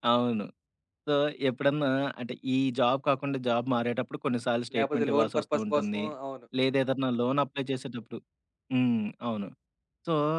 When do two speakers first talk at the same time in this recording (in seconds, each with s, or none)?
4.7 s